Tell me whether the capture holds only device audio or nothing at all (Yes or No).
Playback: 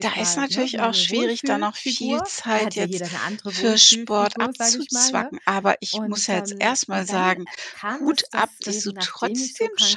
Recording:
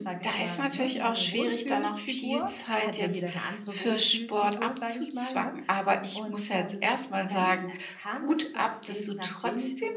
Yes